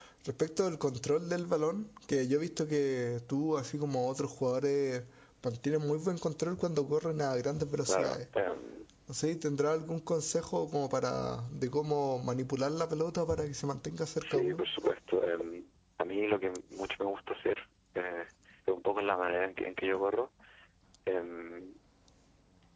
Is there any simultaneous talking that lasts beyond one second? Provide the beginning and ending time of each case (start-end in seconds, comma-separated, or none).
none